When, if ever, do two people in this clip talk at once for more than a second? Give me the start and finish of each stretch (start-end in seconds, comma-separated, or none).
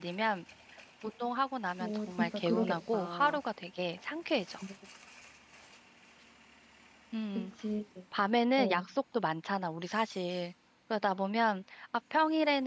1.8-3.4